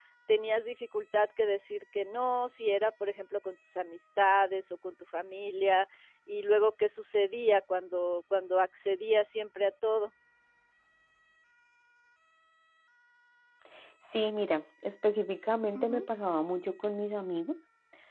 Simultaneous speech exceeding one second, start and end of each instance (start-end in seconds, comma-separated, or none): none